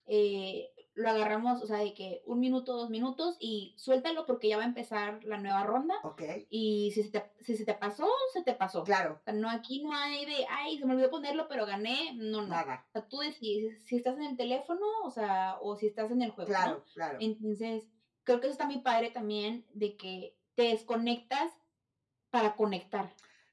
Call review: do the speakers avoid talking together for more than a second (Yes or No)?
Yes